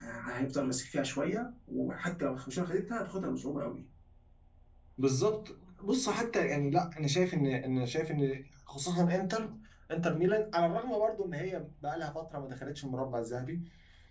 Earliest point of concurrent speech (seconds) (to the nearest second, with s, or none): none